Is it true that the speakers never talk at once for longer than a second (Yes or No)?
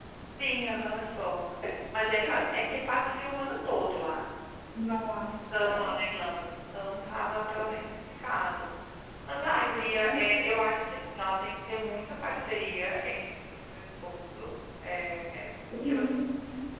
Yes